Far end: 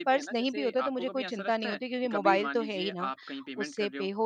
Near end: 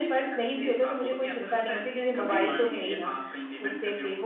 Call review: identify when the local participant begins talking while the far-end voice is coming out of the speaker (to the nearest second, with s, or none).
2 s